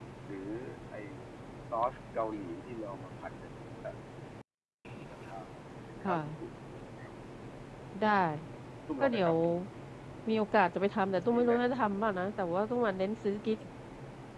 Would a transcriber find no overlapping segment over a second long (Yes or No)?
Yes